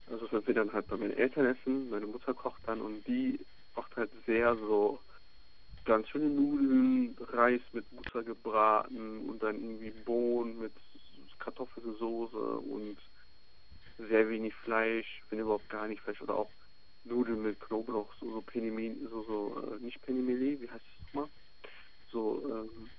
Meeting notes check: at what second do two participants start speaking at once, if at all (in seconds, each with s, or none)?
none